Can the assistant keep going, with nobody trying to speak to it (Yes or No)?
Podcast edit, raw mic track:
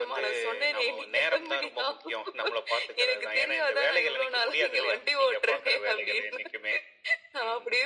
Yes